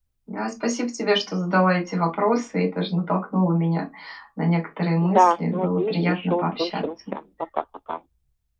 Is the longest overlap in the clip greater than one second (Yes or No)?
Yes